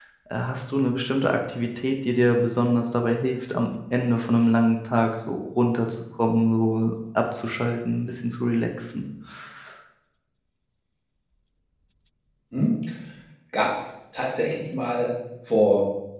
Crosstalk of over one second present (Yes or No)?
No